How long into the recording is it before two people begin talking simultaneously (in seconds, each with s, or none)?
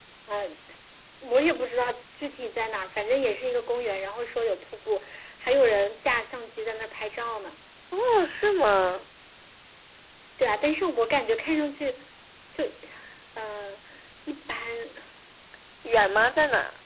none